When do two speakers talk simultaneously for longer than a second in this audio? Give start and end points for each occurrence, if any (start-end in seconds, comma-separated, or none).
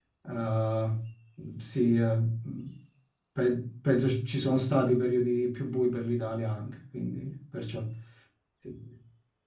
none